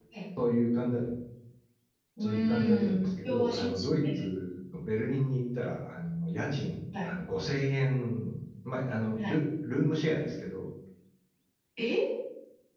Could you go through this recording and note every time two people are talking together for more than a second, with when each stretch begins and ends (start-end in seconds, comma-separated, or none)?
2.2-4.3